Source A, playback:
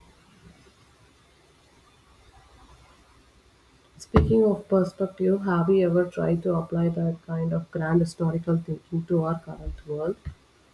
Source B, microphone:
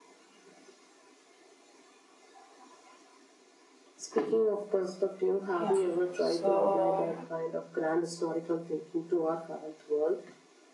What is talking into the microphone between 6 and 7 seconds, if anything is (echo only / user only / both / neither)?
both